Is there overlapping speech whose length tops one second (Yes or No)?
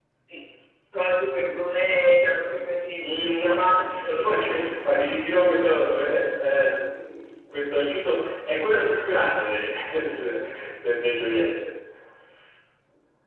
Yes